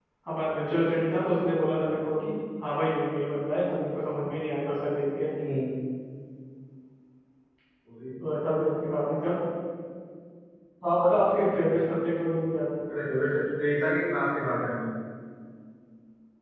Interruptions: none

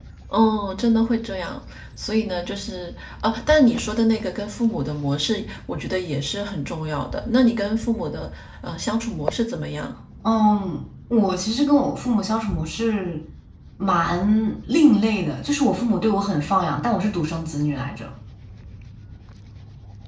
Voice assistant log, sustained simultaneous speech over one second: none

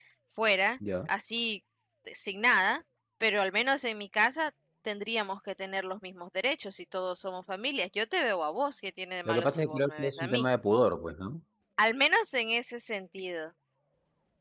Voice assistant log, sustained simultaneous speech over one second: present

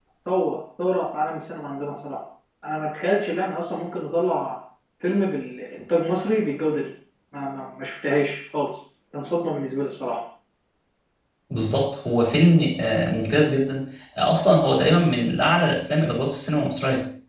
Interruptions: none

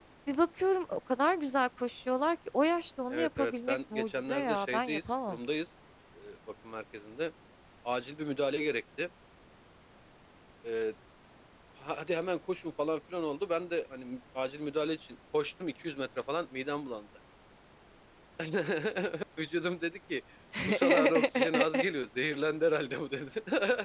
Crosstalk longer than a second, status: present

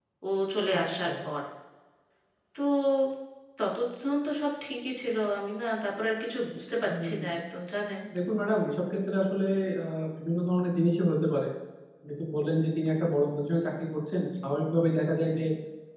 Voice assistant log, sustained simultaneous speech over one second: none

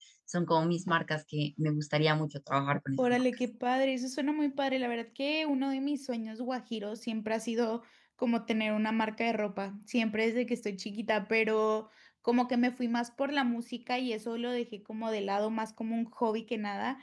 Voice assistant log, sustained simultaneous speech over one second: none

